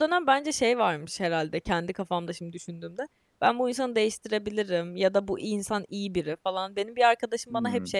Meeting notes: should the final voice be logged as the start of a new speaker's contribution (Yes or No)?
No